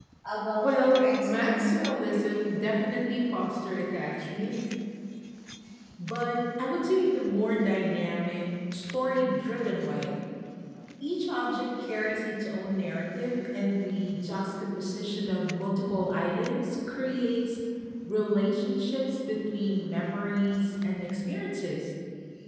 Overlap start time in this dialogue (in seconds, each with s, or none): 0.6 s